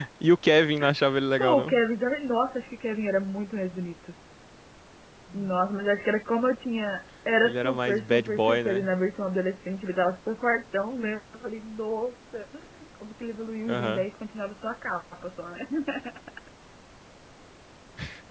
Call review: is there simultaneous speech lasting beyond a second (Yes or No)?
Yes